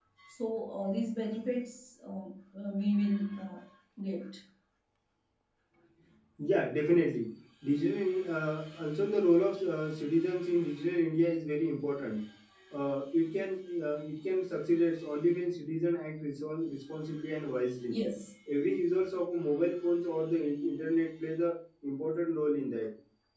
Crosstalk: none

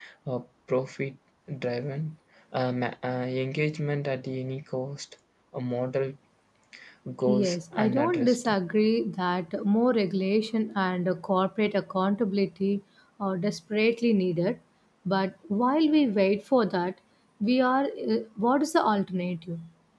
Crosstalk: present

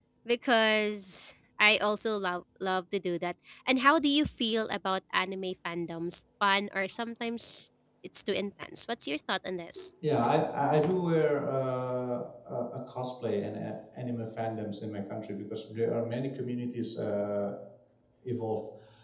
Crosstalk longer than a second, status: none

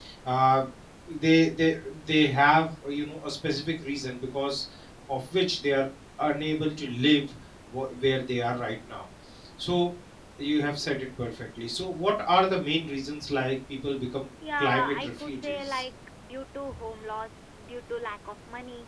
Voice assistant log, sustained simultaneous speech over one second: present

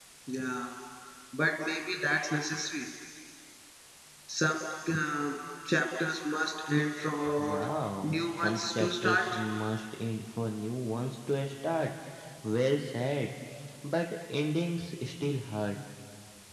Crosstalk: present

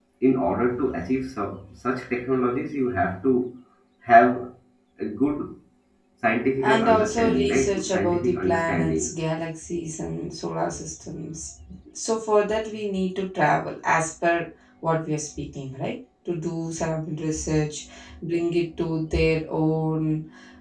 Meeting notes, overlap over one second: present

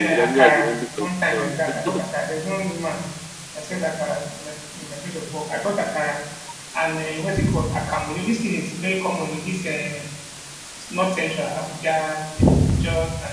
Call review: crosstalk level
present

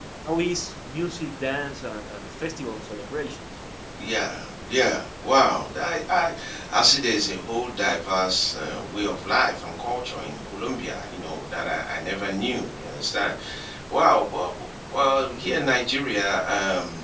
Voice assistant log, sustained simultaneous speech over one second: none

